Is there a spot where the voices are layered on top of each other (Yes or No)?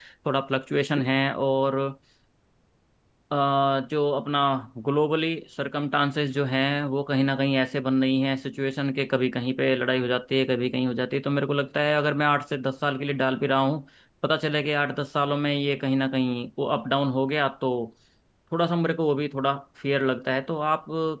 No